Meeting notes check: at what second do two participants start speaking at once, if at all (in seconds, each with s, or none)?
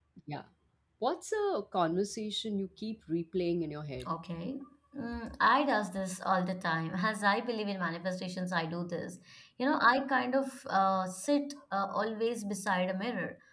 none